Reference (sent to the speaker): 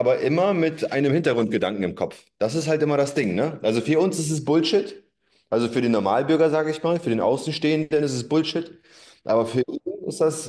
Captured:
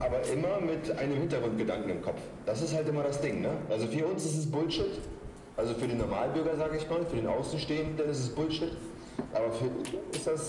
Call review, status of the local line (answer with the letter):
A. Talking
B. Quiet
B